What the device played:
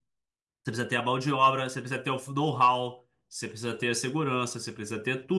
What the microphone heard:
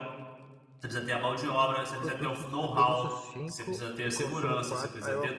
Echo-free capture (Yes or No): No